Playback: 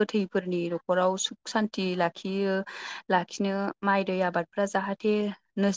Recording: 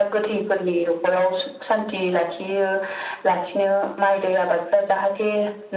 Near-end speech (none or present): none